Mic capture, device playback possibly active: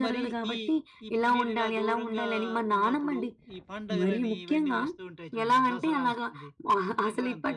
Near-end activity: none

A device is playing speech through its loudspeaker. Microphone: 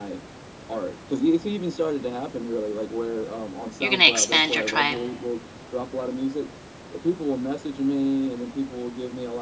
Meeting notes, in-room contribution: present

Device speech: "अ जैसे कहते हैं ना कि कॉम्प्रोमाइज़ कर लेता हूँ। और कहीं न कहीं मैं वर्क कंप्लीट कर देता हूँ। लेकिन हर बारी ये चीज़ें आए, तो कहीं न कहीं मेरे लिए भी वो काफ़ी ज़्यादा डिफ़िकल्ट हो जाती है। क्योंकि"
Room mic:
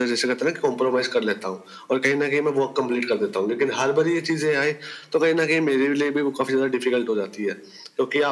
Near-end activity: none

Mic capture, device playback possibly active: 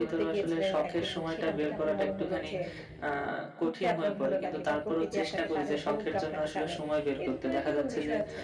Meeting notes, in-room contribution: present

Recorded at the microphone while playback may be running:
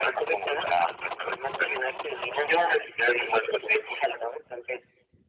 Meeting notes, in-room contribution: none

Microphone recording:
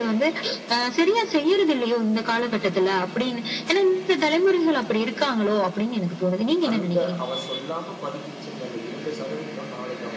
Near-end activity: present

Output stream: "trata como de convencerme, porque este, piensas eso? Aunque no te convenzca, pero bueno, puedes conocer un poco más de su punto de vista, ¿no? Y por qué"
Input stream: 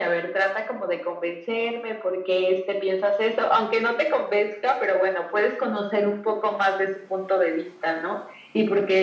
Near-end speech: none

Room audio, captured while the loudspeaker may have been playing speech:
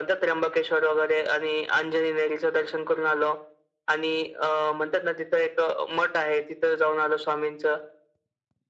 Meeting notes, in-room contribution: none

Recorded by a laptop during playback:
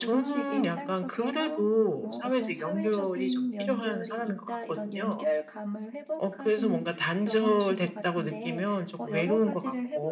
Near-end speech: present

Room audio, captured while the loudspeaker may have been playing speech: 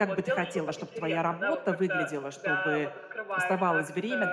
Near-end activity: present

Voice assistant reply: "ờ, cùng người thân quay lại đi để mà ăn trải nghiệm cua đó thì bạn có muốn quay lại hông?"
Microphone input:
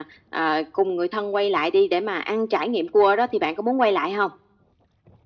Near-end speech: none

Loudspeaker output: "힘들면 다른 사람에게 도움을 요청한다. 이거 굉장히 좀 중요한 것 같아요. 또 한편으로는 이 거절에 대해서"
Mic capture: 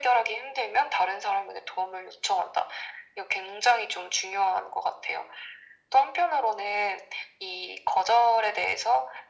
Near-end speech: none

